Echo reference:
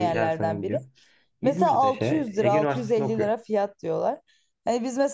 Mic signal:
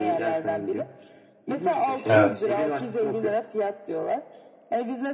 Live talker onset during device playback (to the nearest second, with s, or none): 2 s